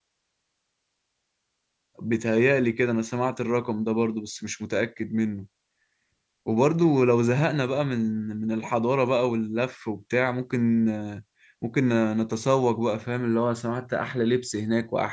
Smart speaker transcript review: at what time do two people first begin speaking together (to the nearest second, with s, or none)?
none